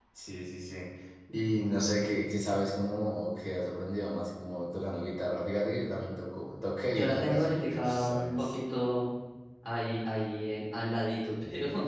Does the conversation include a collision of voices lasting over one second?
Yes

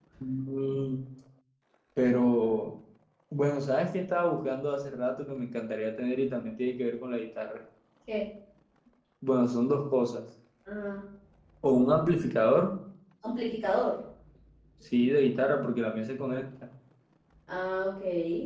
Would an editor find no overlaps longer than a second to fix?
Yes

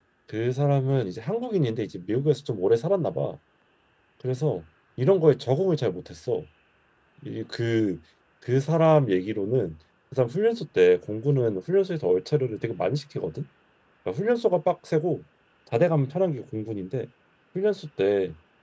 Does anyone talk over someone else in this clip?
No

